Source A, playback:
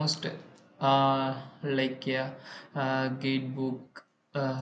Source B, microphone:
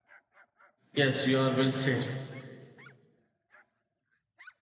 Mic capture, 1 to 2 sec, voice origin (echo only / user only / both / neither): user only